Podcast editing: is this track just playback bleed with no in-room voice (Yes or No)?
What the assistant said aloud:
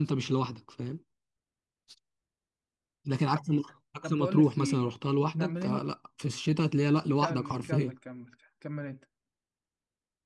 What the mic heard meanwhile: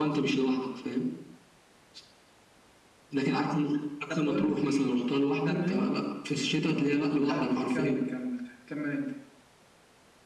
Yes